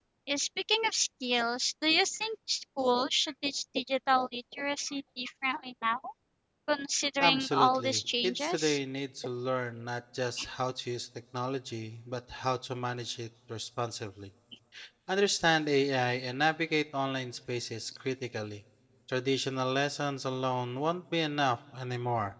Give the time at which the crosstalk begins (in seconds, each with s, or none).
7.2 s